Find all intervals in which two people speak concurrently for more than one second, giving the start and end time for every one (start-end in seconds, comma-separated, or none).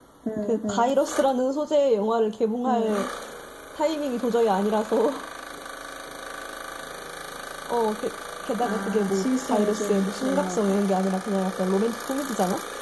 8.6-10.8